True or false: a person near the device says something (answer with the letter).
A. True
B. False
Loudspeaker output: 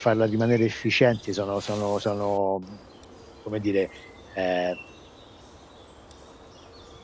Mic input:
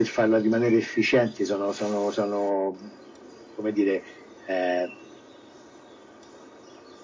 B